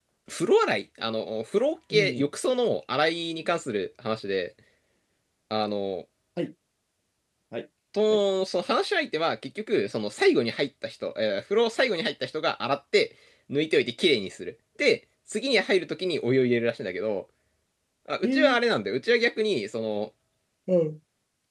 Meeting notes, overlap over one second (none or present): none